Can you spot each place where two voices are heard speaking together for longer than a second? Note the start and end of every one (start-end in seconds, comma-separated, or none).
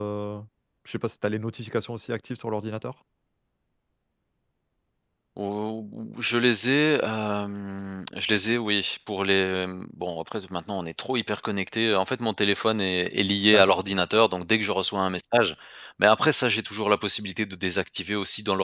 none